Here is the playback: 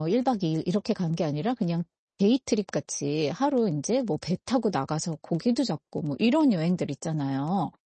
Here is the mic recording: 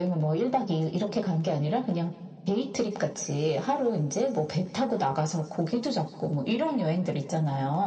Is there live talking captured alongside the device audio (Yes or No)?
No